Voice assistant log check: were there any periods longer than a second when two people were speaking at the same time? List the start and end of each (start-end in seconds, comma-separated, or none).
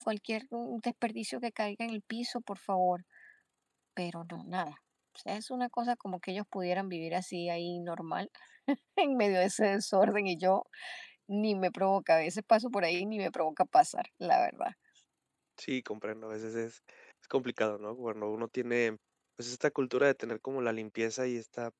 none